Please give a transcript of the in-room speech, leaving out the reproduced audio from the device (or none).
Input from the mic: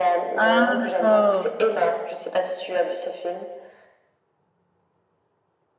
Ah d'accord.